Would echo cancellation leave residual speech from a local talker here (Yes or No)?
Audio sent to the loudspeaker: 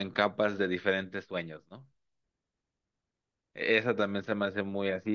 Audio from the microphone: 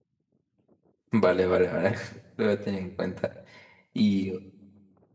Yes